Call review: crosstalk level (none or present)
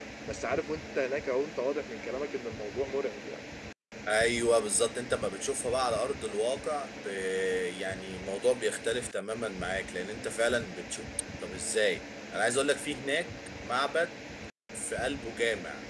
none